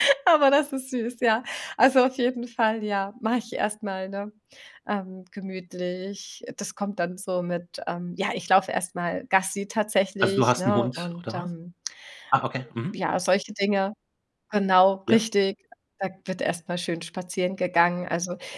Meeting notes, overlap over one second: present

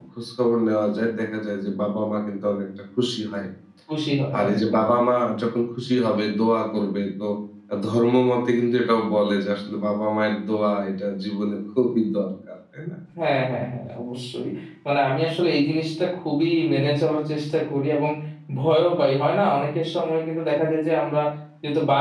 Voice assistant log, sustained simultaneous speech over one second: none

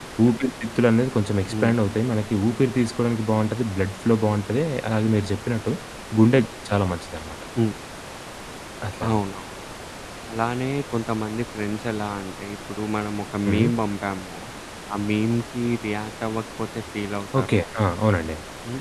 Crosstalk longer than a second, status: none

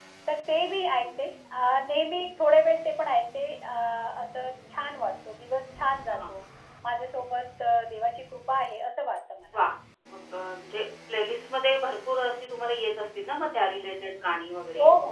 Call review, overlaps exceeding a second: none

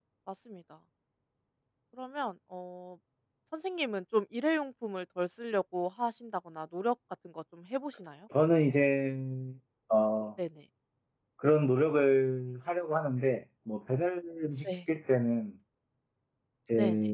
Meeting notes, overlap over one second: none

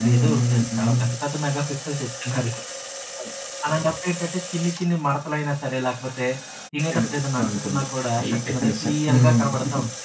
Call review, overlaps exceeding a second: present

